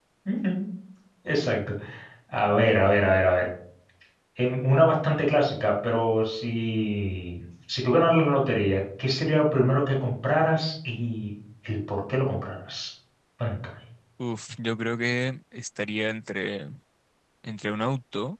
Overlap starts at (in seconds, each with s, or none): none